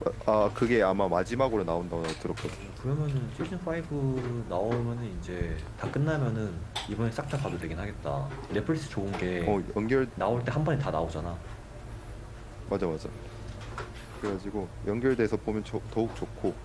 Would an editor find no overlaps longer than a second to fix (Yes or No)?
Yes